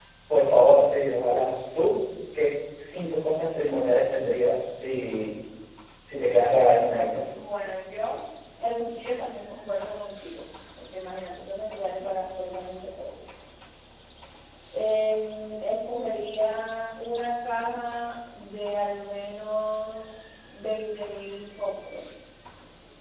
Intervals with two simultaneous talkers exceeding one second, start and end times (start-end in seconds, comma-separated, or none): none